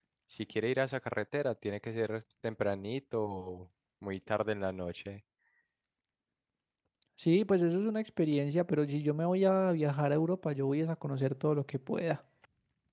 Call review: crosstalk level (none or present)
none